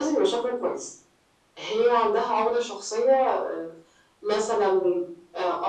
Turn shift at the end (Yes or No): No